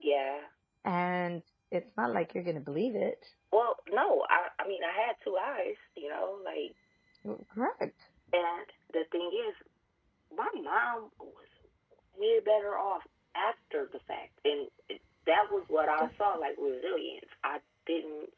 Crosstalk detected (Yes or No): No